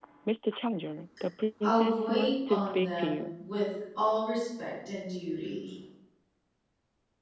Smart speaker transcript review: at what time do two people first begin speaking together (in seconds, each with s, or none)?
1.6 s